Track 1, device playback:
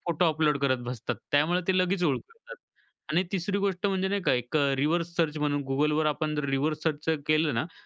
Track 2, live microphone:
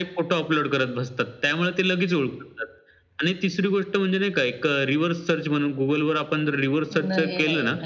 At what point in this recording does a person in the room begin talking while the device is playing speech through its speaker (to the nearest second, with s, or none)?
7 s